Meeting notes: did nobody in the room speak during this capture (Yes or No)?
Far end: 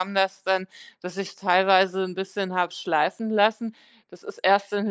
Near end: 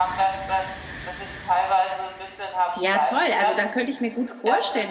No